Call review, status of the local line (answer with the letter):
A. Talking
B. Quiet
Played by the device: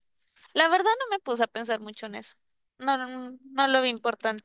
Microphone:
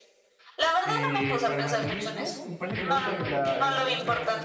A